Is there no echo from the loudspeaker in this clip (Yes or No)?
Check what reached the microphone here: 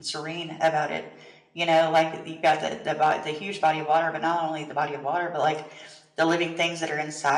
Yes